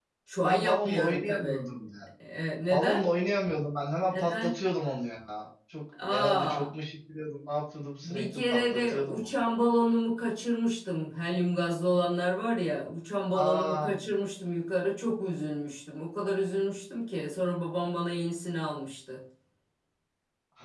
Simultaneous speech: Yes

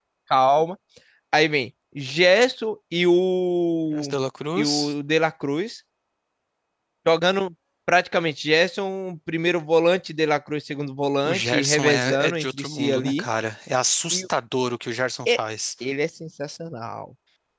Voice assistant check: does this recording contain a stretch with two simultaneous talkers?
Yes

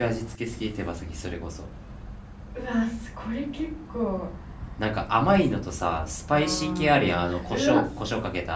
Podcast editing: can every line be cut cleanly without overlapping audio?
No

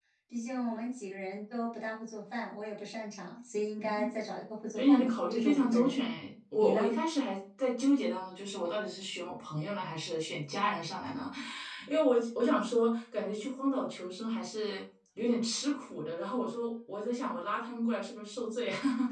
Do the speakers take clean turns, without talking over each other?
No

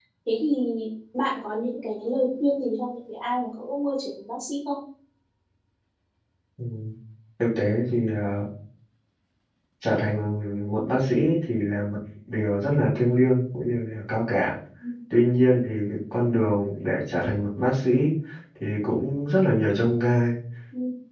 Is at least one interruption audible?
No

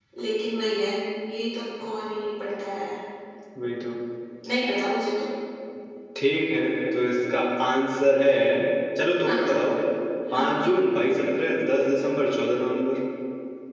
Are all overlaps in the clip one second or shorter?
Yes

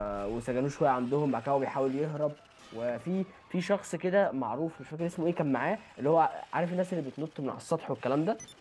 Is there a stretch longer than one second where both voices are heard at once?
No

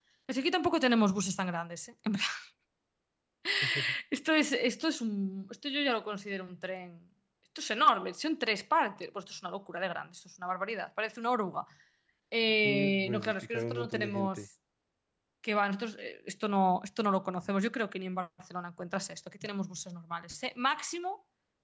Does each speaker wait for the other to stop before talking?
No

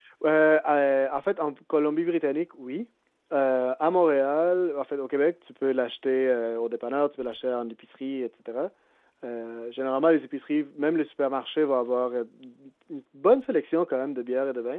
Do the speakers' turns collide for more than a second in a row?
No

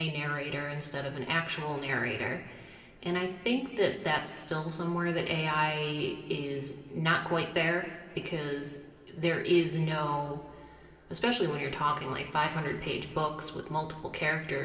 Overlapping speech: No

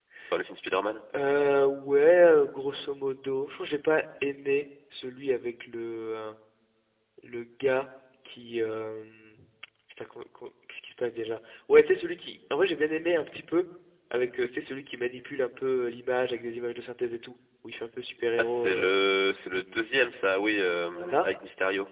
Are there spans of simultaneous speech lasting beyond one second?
No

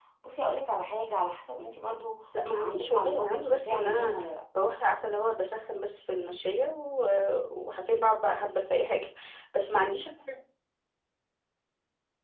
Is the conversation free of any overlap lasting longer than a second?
No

